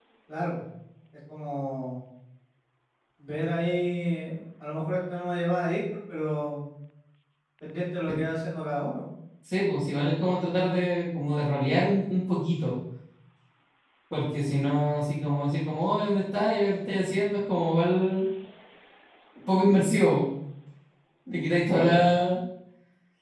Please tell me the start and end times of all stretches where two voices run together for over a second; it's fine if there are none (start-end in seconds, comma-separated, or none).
none